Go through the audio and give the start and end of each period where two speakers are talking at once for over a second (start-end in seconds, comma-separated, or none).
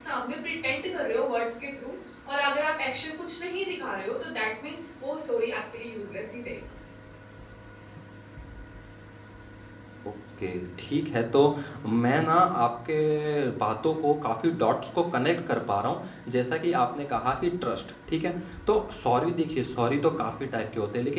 none